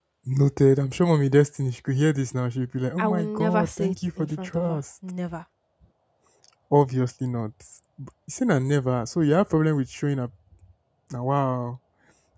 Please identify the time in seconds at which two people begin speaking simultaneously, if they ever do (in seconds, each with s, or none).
3.0 s